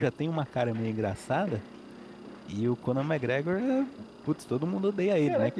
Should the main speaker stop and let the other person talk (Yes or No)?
Yes